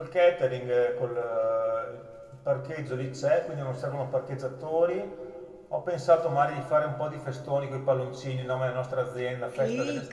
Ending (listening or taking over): taking over